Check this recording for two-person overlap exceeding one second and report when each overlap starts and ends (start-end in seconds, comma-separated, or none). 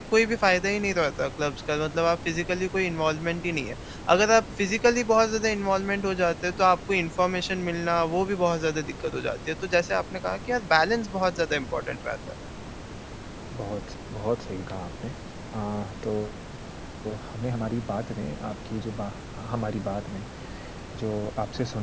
none